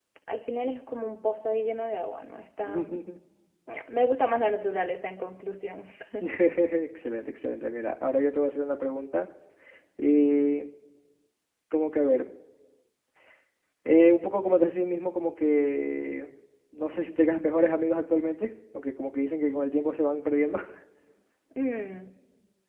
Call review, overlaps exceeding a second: none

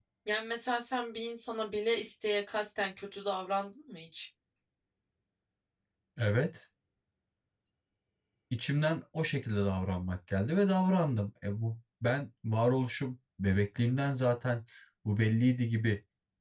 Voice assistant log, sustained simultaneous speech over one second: none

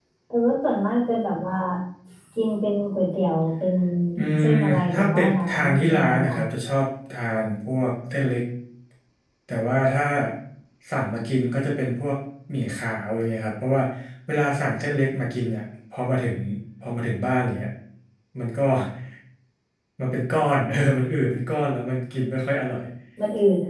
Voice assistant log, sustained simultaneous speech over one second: present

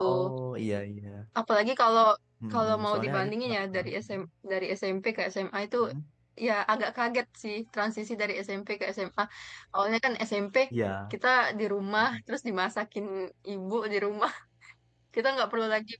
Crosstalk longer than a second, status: present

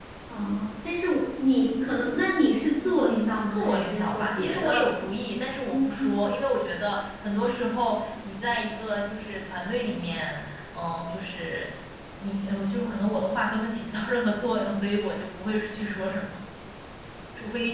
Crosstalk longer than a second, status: present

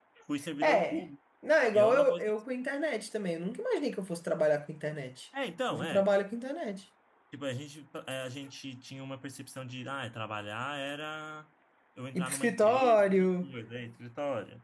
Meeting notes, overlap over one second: present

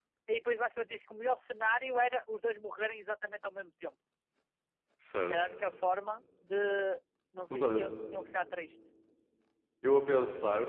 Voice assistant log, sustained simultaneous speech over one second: none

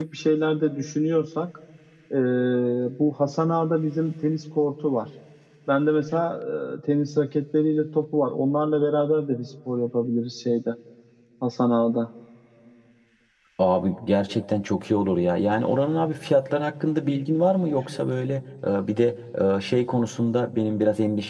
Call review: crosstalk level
none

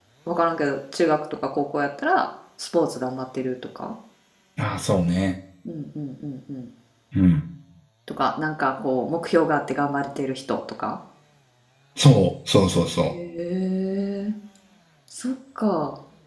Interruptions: none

